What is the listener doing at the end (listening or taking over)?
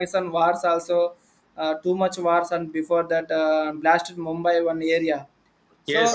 taking over